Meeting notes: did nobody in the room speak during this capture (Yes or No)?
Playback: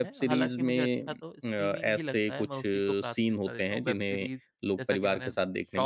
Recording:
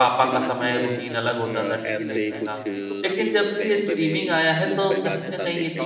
No